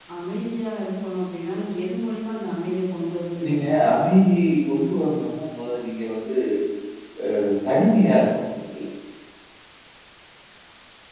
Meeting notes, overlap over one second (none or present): none